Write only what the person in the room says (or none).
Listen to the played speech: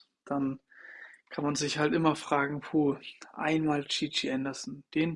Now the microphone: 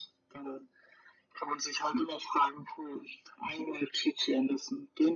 none